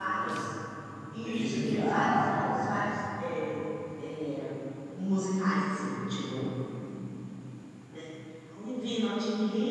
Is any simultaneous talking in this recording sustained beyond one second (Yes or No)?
Yes